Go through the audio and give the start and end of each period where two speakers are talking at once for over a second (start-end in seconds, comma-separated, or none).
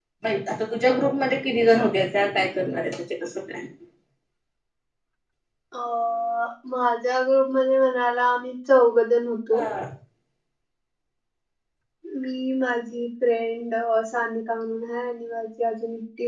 none